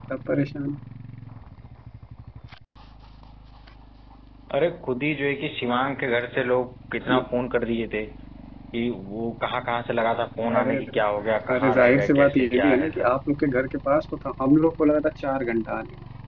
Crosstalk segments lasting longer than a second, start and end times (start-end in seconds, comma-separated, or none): 11.5-13.1